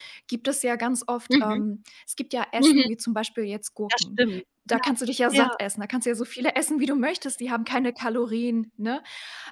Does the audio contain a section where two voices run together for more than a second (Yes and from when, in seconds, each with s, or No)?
No